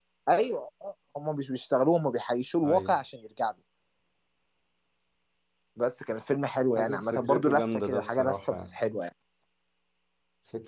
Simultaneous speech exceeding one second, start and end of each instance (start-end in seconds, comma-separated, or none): 6.8-8.6